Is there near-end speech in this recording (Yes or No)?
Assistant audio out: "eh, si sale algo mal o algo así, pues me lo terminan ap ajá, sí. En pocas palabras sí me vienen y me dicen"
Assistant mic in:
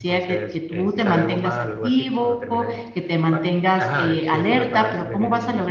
Yes